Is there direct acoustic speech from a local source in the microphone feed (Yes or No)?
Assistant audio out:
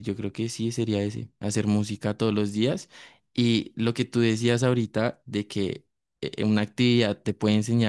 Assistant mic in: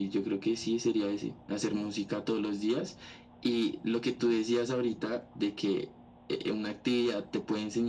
No